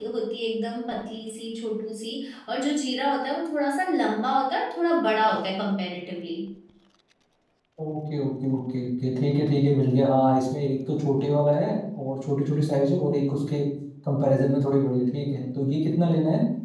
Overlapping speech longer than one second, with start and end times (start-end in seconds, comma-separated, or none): none